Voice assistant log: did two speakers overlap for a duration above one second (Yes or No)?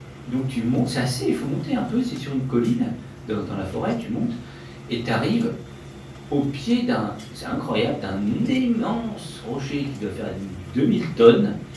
No